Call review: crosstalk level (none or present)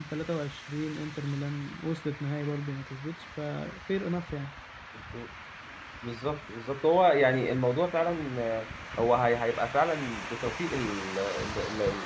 none